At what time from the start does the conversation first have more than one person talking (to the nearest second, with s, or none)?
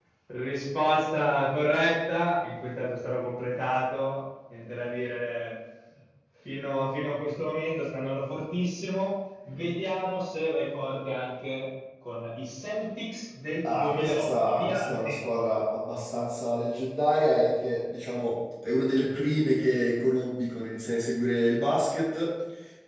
14 s